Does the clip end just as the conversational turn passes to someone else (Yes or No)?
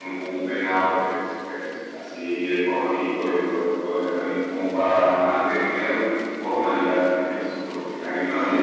No